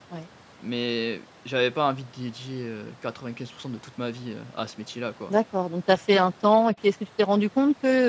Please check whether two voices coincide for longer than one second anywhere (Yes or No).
No